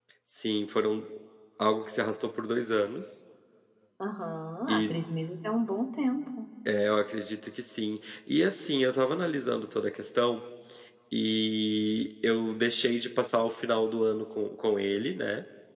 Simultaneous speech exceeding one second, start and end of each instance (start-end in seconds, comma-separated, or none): none